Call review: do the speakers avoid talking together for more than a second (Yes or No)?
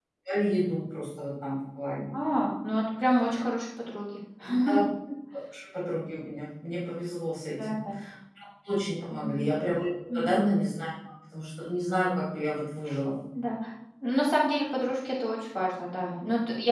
Yes